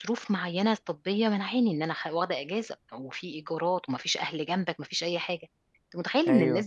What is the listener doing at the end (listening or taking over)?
listening